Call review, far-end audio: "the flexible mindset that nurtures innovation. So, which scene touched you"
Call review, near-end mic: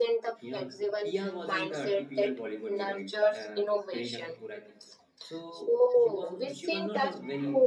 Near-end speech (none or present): present